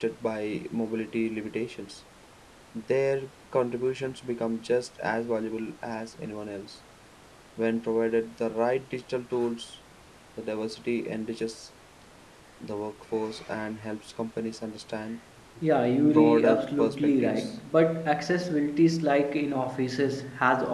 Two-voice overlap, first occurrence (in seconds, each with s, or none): 16.0 s